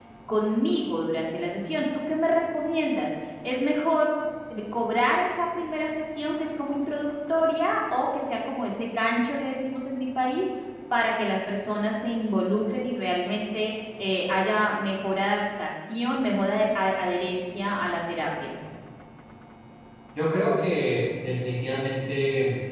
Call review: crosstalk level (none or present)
none